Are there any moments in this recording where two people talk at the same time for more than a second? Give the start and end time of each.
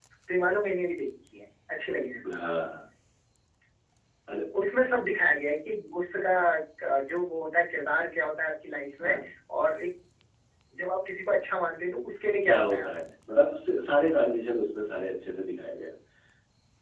none

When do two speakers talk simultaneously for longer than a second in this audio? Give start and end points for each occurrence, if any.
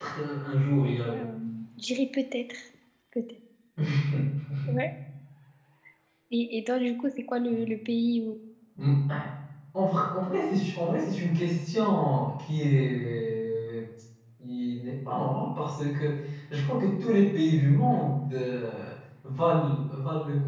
none

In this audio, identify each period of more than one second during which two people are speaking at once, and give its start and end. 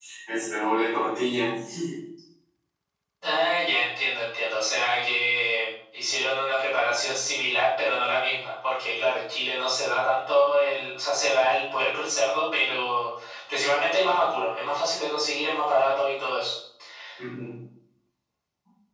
none

